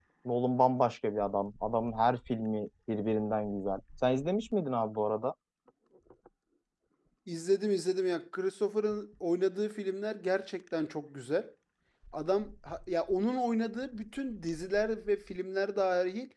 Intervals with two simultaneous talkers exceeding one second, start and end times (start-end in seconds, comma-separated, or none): none